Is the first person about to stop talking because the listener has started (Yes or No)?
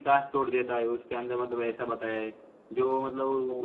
No